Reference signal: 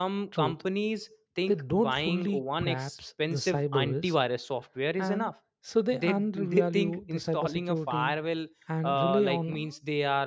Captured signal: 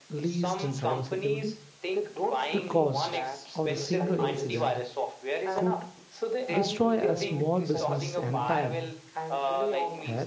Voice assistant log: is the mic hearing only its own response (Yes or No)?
No